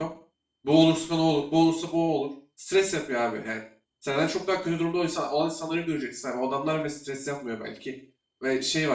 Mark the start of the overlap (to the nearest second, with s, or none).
none